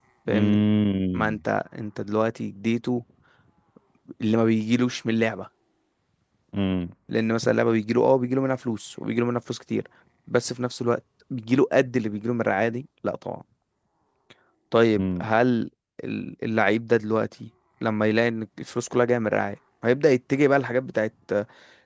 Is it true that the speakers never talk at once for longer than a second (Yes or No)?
Yes